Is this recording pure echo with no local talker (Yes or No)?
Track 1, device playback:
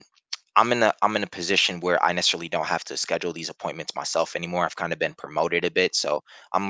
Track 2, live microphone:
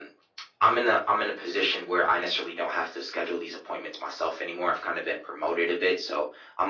Yes